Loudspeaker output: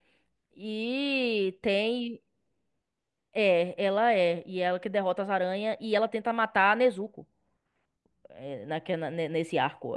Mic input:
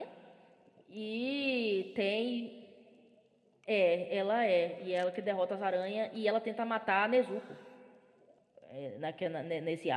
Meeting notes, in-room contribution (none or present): none